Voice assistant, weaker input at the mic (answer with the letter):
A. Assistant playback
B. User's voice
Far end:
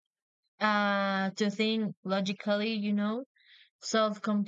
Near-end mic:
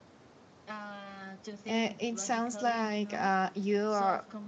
A